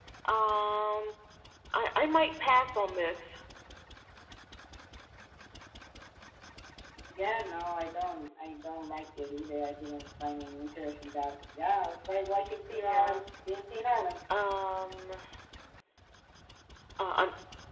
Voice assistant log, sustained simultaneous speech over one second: none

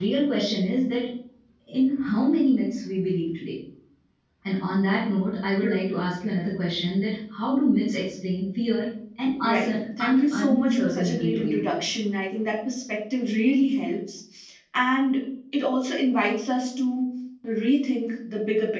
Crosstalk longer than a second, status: present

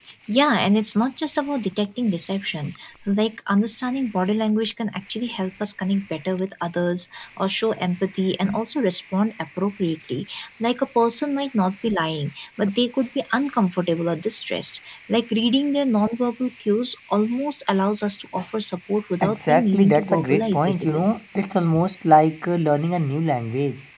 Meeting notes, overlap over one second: present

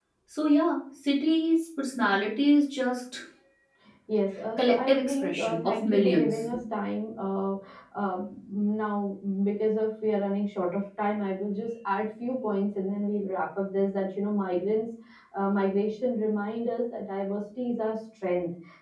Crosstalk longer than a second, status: present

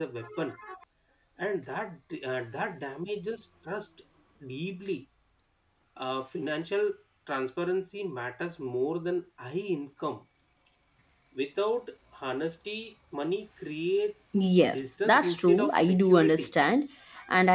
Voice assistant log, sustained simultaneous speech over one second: present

